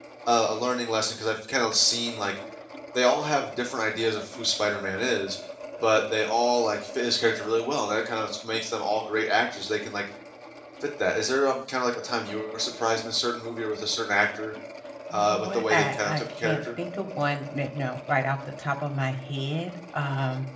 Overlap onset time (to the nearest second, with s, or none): 15 s